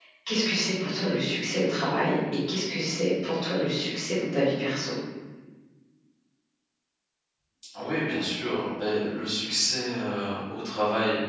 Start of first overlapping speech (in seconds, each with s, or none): none